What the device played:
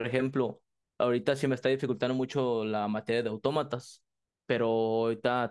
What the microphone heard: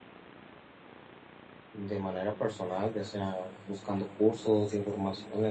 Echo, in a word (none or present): none